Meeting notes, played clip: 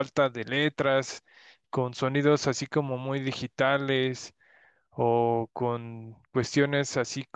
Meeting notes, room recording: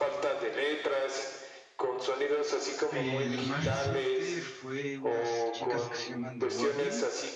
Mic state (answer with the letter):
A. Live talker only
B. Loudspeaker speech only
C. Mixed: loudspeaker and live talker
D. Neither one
C